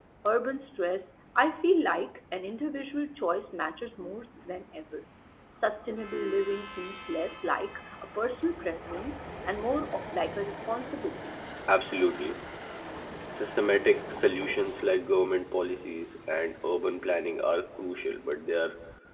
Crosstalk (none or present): none